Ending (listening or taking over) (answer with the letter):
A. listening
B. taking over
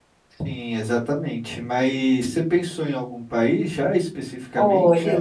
B